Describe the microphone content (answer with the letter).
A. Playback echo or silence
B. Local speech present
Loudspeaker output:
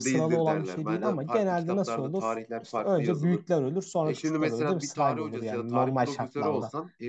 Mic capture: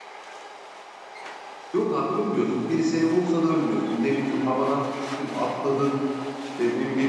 B